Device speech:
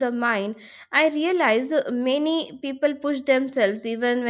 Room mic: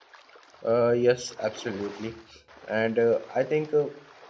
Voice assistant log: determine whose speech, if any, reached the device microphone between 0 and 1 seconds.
user only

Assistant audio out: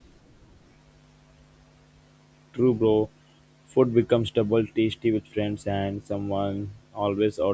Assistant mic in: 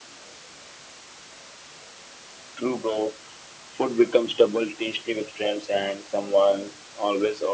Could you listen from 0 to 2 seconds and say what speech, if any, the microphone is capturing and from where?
neither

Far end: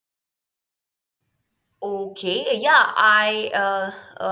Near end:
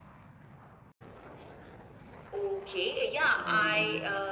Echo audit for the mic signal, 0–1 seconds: neither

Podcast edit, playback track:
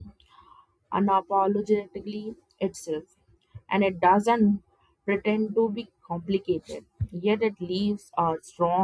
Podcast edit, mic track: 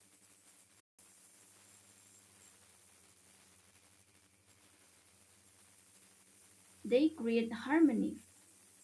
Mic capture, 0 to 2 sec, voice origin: neither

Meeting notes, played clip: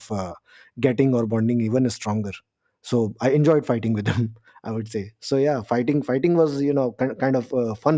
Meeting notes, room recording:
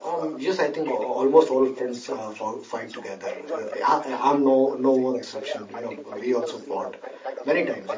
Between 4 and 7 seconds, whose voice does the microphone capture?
both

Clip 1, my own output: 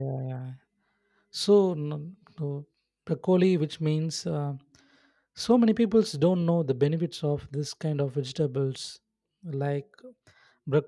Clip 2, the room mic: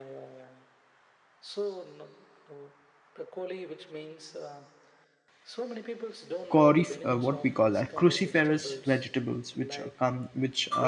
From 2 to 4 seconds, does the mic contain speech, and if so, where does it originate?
echo only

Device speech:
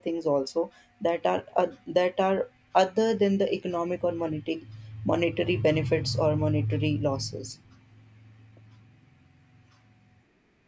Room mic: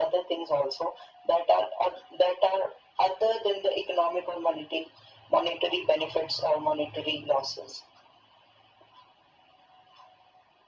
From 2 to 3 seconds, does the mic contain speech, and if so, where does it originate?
echo only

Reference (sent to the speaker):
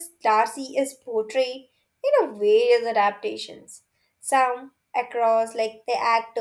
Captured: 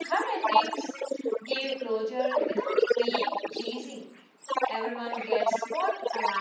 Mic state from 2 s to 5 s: both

